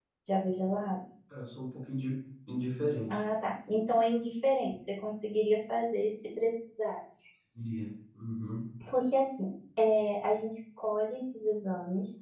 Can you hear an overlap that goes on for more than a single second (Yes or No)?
No